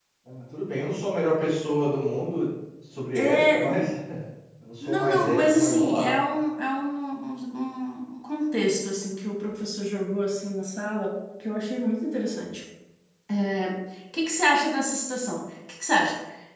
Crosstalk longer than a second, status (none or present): present